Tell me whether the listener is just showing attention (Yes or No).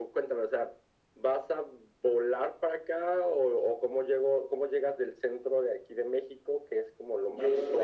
No